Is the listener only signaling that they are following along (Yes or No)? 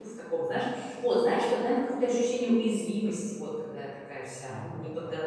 Yes